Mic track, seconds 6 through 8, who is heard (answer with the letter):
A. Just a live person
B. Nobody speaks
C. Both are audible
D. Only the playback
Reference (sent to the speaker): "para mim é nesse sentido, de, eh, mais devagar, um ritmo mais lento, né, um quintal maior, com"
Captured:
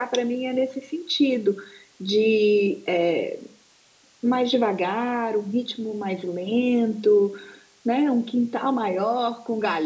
D